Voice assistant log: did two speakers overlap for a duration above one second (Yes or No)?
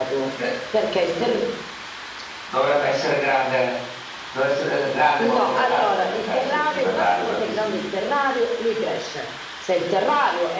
Yes